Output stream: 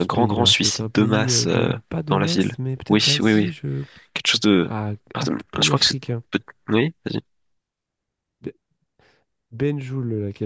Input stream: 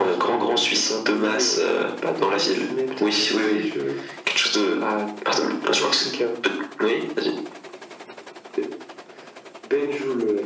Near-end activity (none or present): none